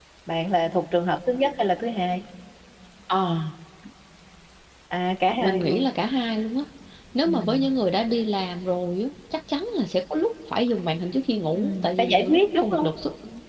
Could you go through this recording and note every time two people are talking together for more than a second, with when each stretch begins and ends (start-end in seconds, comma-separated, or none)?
11.5-12.9